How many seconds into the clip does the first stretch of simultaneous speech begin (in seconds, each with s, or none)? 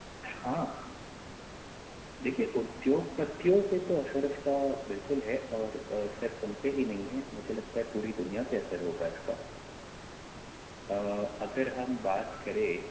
none